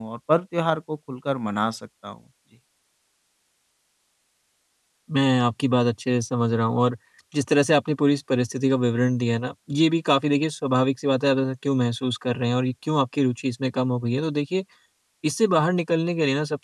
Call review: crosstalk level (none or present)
none